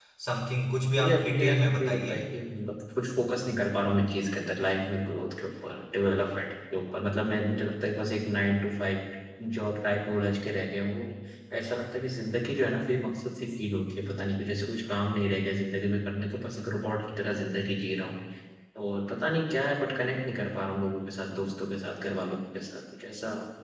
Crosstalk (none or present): present